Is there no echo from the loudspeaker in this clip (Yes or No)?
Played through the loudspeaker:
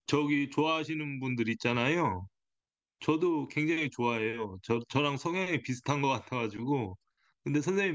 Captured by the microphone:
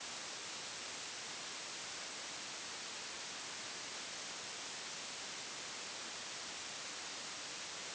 Yes